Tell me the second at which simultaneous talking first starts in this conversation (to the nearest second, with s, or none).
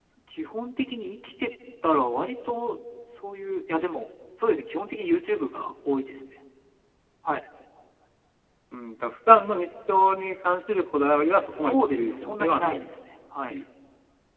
11 s